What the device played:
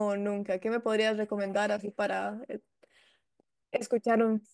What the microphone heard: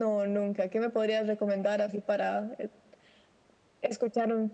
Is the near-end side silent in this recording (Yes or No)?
Yes